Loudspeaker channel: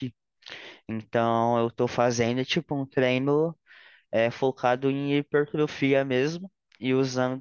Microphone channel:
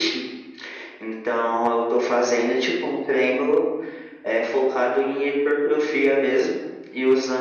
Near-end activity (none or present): none